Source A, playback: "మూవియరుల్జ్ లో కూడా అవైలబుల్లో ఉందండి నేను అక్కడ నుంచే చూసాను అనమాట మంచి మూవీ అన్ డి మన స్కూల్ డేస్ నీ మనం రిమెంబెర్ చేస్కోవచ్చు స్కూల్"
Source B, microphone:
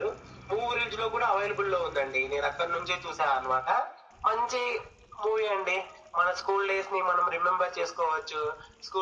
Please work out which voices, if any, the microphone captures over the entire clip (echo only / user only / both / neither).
echo only